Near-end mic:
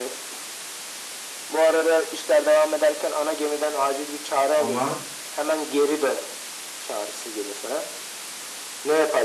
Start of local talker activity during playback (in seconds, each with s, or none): 4.5 s